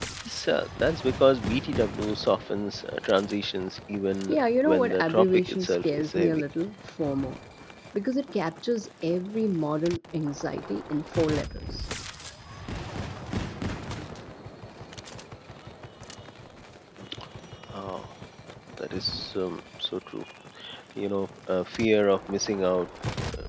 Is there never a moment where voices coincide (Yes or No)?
No